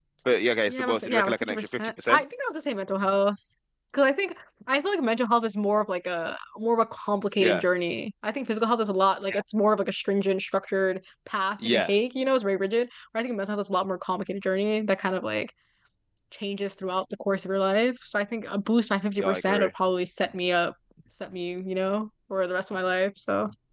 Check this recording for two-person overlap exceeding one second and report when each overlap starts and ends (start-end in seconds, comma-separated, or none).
0.7-2.2